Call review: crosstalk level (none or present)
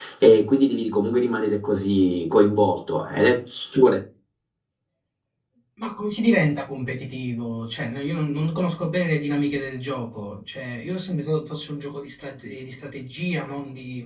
none